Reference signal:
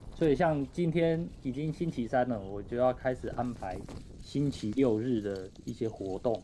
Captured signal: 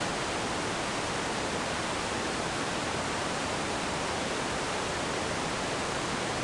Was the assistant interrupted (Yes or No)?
No